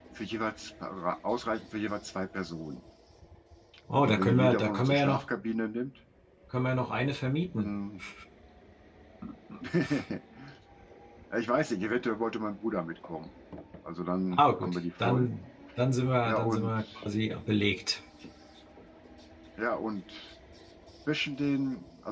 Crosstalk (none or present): present